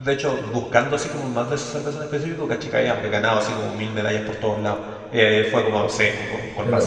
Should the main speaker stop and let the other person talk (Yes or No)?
Yes